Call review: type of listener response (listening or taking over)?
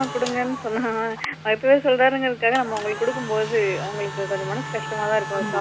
taking over